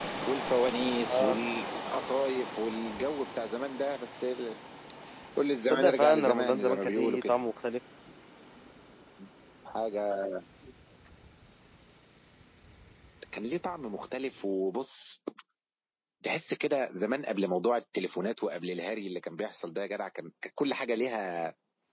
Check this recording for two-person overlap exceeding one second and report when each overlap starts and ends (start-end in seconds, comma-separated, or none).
5.7-7.4